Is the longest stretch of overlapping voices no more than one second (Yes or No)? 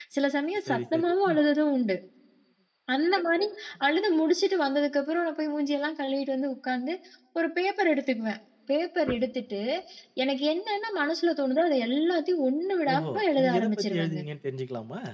No